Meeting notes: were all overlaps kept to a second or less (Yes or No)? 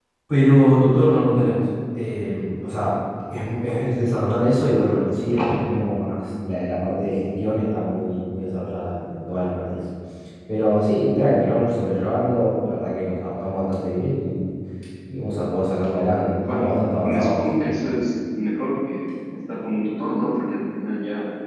No